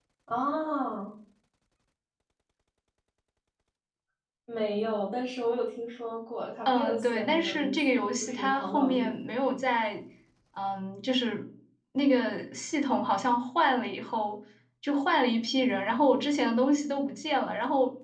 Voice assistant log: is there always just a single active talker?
No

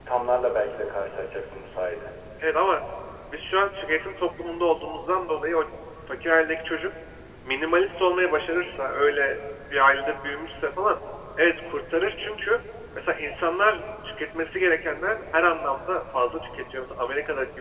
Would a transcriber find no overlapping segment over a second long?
Yes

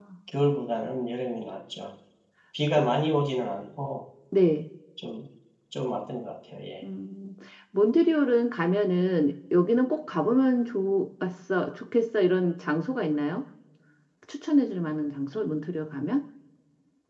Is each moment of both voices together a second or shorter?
Yes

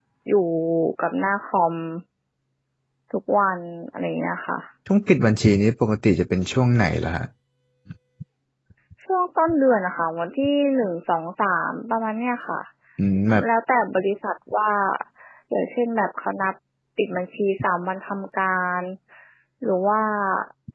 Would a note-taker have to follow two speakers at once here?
No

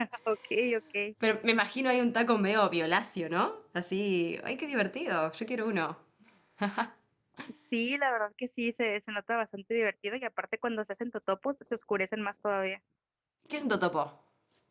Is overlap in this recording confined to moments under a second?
Yes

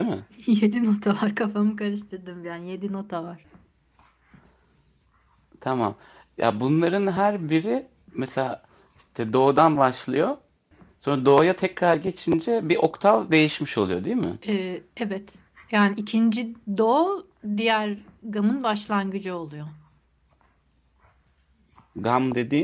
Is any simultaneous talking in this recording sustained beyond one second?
No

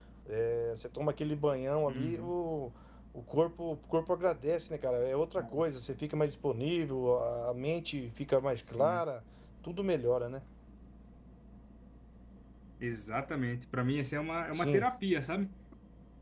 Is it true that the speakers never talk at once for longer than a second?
Yes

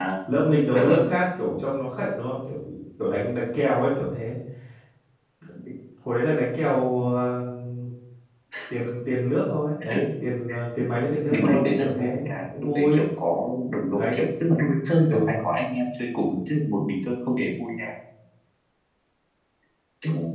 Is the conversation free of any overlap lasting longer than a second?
No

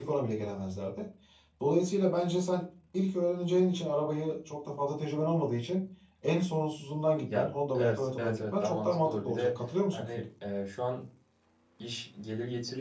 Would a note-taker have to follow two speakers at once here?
Yes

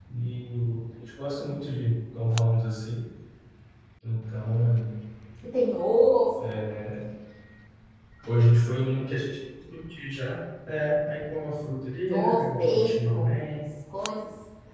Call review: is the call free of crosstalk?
No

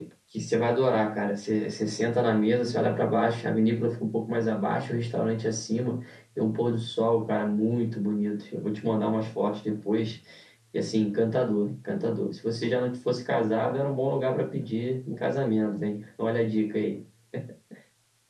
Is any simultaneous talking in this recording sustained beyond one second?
No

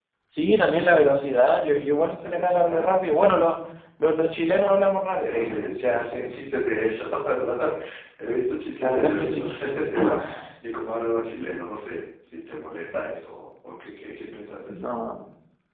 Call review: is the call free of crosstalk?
No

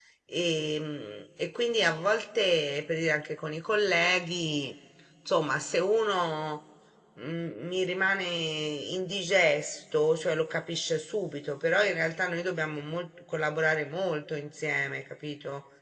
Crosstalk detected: No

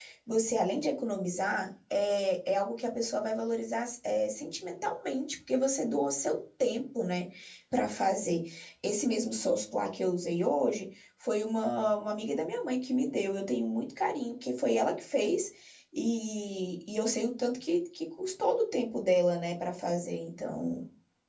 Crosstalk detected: No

